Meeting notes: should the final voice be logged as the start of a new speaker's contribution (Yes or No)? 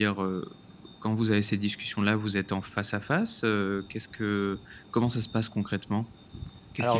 Yes